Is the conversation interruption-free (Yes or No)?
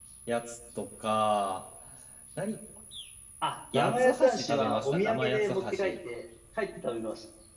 No